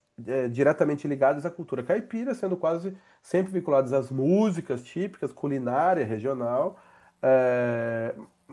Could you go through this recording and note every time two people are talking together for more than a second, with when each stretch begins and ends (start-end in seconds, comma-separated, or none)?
none